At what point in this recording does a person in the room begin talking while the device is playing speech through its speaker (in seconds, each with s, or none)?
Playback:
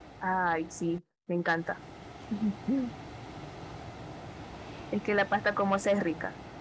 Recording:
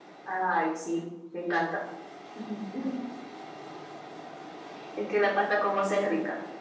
none